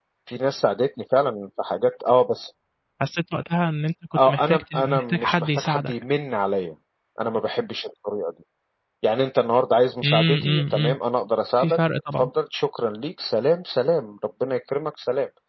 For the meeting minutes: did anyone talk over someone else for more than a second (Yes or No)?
Yes